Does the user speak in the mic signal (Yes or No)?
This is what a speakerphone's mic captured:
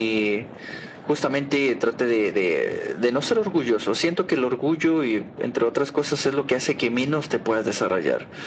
No